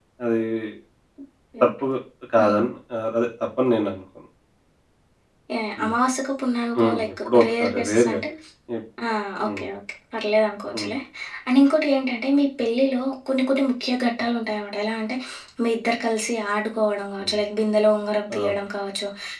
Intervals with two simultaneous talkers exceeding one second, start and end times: 6.8-8.2

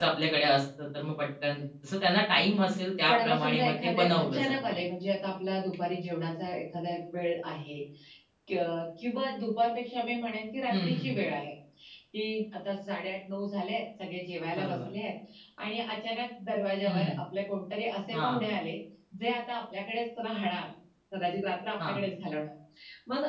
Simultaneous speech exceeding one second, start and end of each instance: 3.1-4.7

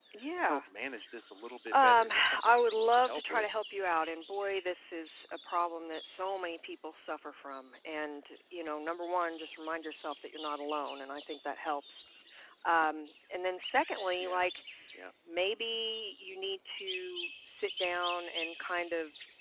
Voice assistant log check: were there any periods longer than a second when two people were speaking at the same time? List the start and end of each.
1.7-3.5

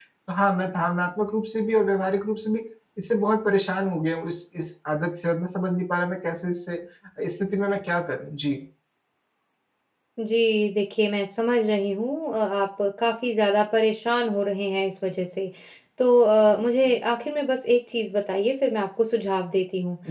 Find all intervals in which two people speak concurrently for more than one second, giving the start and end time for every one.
none

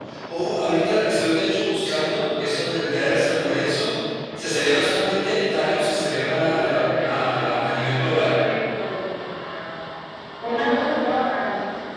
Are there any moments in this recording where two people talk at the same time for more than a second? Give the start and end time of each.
6.4-8.3

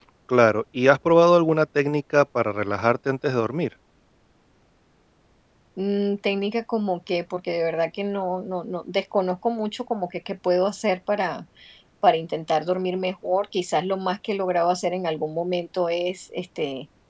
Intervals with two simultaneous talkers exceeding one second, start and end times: none

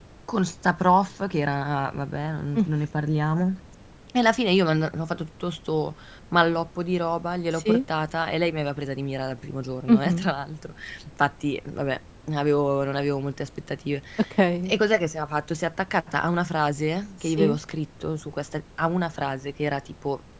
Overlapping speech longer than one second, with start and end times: none

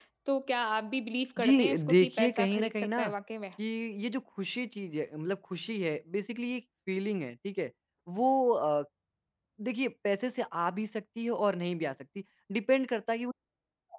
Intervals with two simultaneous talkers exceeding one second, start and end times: 1.4-3.1

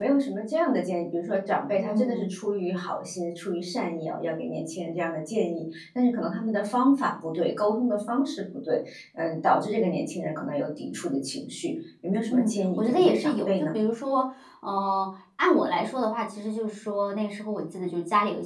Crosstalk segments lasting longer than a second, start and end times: 12.3-13.8

